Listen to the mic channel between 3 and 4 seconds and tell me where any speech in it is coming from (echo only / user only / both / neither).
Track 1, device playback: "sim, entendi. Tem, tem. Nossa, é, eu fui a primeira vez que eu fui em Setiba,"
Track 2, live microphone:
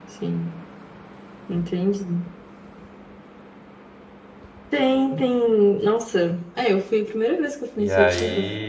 neither